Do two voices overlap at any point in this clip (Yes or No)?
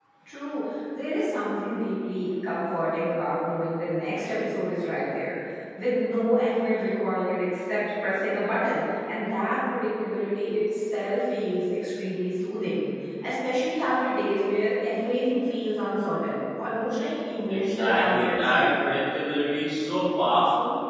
Yes